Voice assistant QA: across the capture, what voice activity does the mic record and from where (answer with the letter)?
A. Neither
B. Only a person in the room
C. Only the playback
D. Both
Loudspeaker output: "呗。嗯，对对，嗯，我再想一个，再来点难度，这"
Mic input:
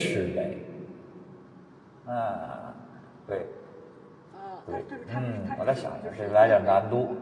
D